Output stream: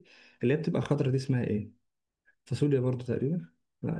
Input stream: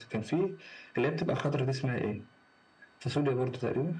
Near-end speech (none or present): none